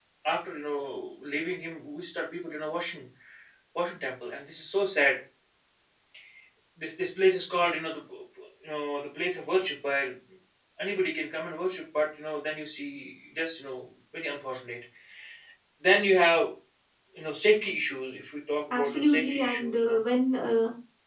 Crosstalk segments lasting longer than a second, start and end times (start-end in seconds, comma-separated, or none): 18.7-20.0